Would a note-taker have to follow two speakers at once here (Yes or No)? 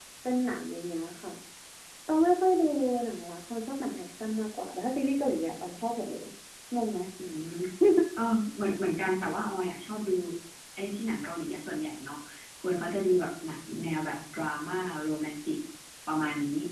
No